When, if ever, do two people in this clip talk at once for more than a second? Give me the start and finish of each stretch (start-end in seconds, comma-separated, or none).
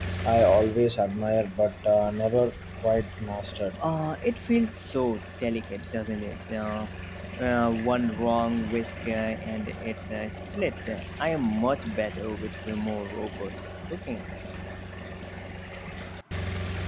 none